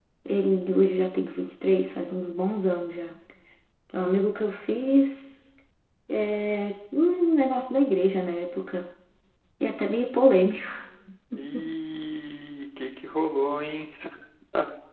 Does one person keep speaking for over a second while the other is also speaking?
No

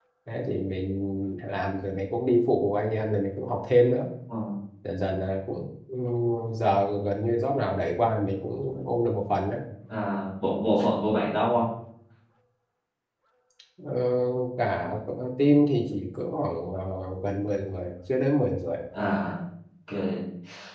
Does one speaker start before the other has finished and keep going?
No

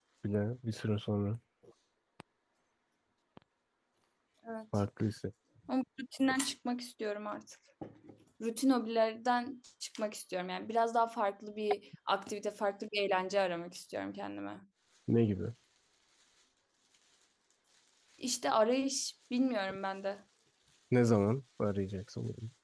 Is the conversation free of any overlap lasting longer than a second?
Yes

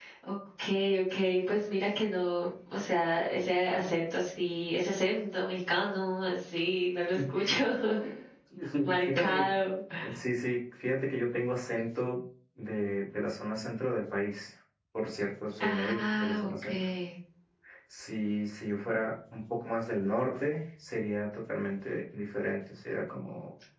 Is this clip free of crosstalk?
No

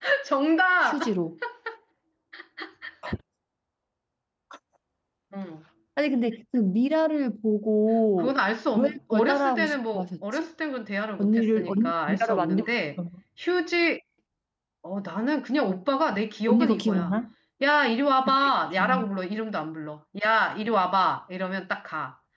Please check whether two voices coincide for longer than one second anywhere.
Yes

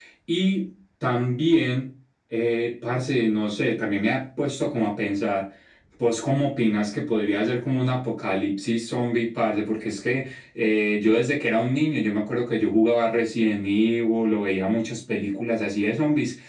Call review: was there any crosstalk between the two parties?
No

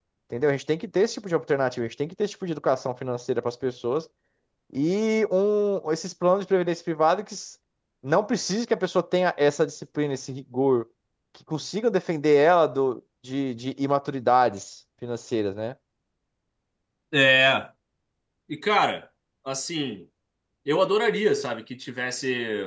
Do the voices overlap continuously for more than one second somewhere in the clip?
No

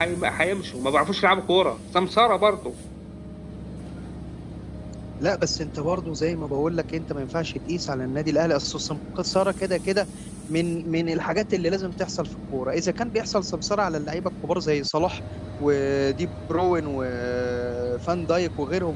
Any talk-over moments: No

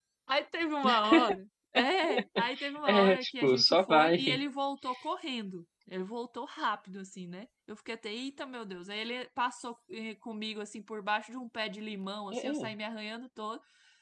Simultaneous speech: Yes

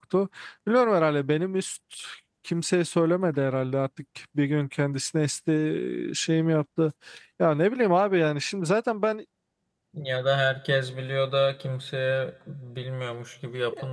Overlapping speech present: No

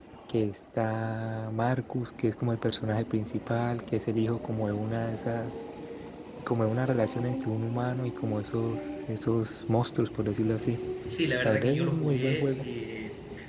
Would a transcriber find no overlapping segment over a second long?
No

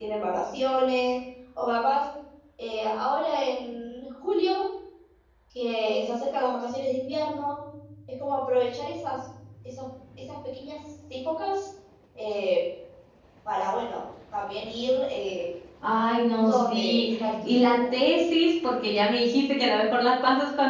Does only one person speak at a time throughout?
No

